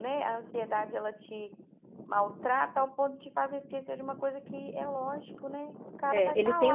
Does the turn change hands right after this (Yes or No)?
Yes